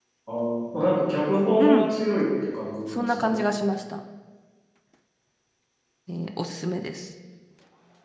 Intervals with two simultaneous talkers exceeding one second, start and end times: none

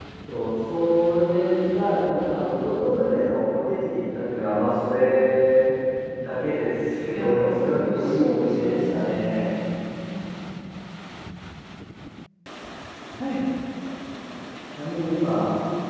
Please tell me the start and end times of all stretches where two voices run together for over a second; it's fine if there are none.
7.1-9.6

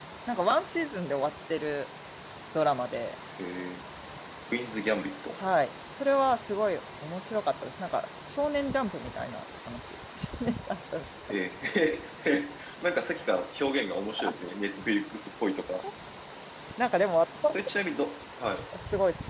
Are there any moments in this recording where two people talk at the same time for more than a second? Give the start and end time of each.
none

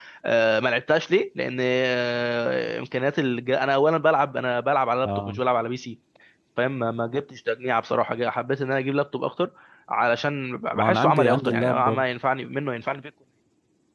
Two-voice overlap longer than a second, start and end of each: 10.8-12.0

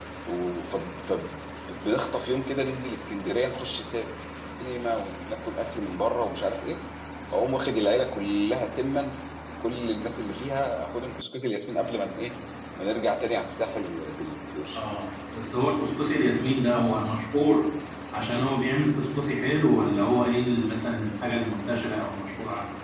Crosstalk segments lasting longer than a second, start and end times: none

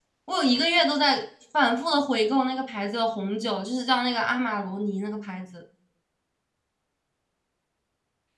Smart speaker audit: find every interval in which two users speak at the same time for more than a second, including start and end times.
none

